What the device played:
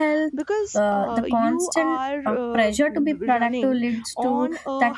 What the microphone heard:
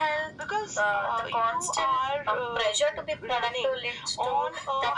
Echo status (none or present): present